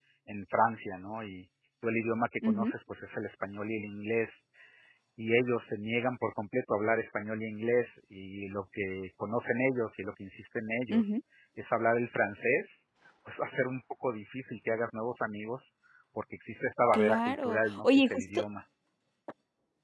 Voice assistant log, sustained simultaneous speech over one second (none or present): present